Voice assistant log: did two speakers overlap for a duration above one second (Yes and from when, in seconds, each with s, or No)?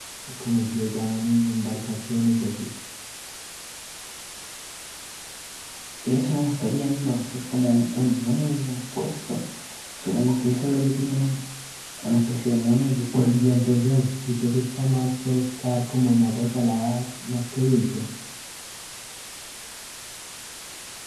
No